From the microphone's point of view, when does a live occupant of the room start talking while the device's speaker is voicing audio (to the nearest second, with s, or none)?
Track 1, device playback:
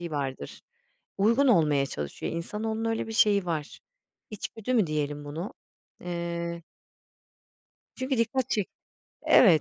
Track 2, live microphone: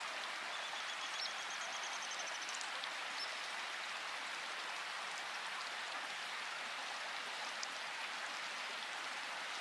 none